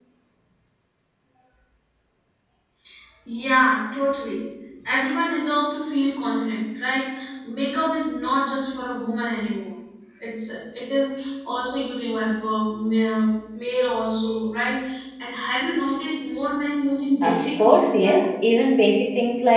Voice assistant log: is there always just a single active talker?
No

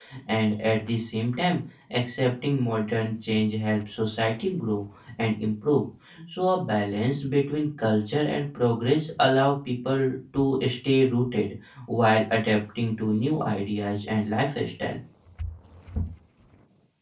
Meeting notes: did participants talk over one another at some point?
No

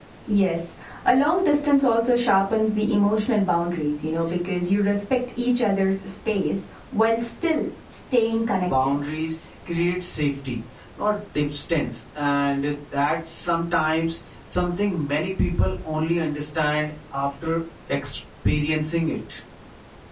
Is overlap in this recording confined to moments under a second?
Yes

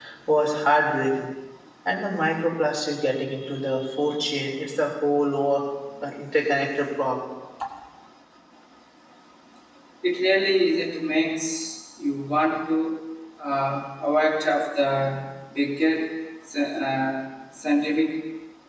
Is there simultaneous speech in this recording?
No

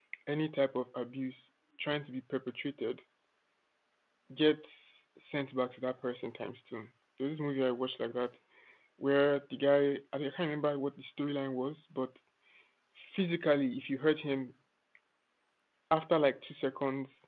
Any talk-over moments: No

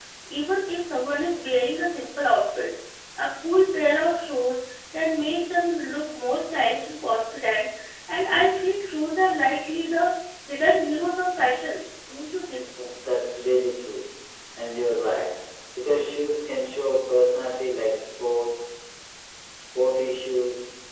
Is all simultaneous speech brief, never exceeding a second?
Yes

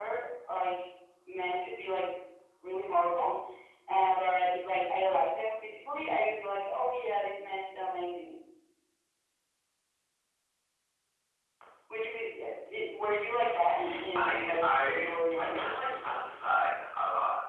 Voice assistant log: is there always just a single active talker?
No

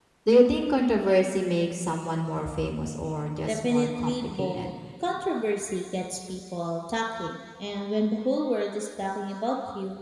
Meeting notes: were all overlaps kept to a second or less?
No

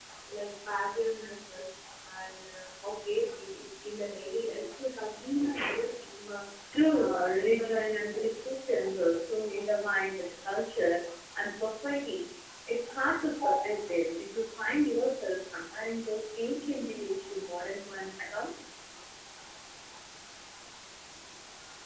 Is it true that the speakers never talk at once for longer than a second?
No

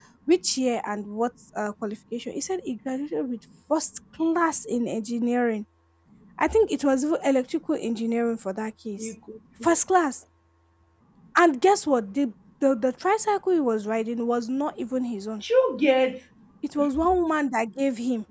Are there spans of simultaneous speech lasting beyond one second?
No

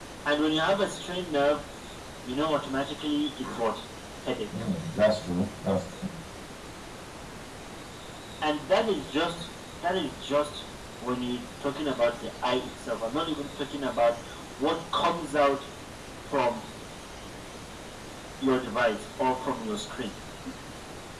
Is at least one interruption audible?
No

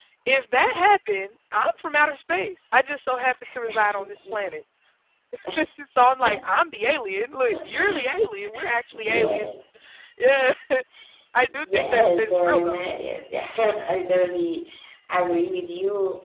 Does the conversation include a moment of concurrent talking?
Yes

